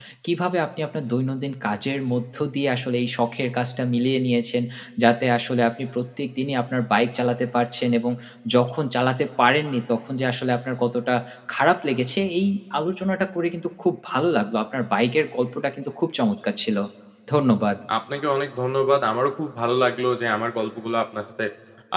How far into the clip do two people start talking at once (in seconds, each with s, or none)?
none